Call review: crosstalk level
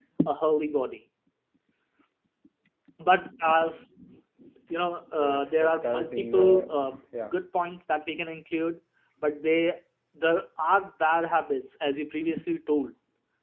present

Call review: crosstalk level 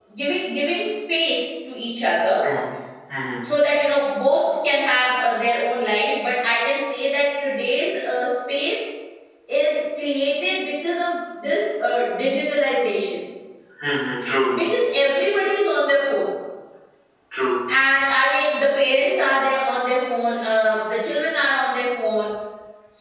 none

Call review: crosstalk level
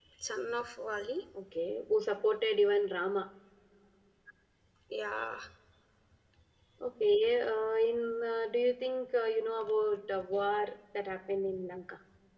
none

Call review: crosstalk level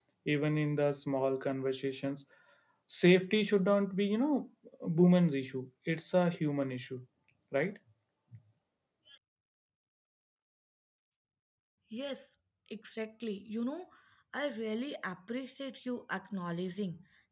none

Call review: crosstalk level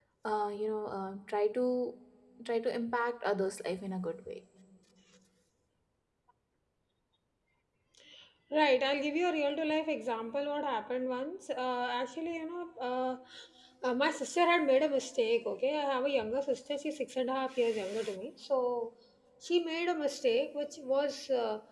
none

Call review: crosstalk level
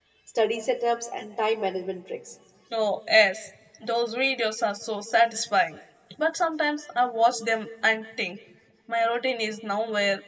none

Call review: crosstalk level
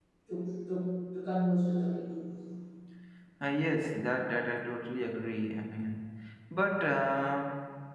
none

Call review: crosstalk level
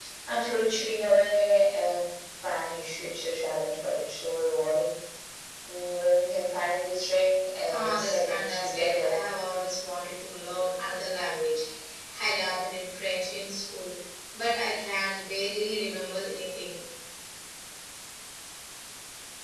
present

